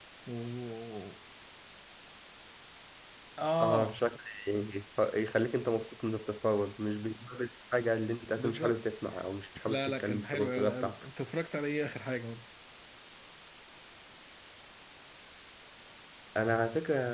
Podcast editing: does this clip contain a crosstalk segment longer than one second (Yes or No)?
Yes